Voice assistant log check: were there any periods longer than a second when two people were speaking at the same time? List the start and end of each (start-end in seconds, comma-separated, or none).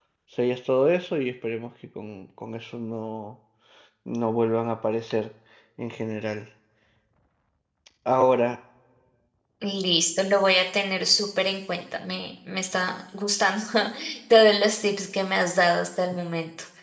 none